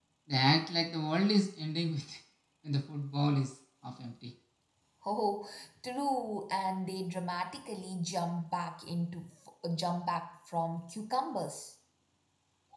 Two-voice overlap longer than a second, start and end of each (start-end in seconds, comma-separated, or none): none